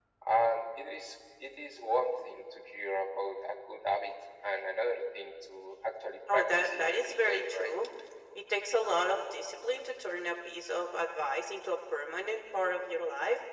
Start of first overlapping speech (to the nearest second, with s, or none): 6 s